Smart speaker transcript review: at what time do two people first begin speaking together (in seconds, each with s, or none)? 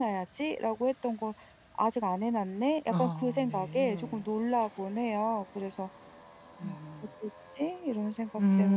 2.9 s